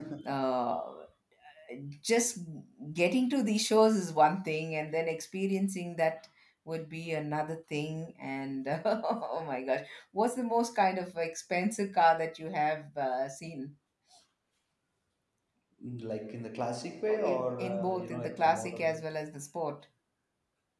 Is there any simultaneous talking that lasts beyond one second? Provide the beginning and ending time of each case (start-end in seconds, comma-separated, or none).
17.1-19.0